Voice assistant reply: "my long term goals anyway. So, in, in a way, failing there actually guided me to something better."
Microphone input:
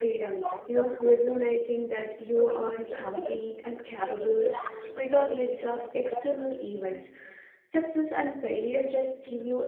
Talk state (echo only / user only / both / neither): both